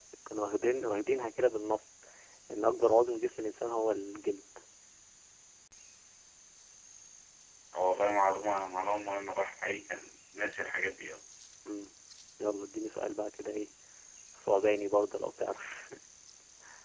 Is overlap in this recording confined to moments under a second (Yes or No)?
Yes